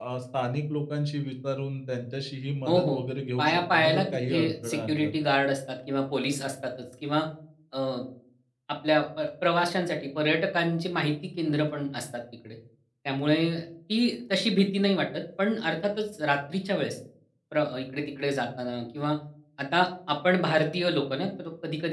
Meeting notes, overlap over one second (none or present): present